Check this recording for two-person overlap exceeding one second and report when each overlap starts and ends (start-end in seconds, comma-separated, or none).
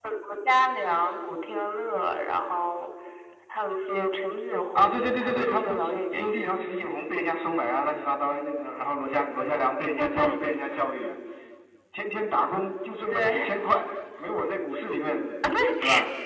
4.8-6.3